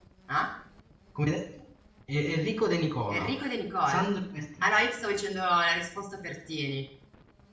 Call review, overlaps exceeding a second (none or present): none